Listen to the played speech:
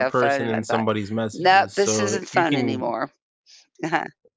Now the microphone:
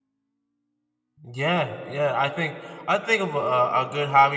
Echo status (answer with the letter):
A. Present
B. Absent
B